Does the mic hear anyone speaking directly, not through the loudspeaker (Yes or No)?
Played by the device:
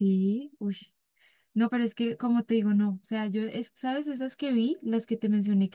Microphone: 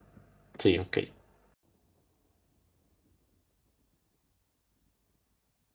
Yes